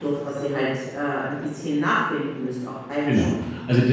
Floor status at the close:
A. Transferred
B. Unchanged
A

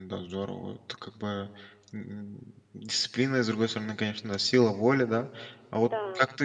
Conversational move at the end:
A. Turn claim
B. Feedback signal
B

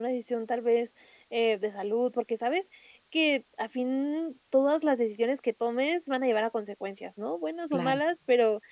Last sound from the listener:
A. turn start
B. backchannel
B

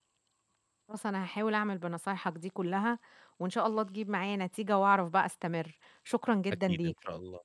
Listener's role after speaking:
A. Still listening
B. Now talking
B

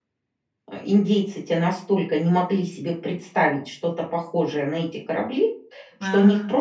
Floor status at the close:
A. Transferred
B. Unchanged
B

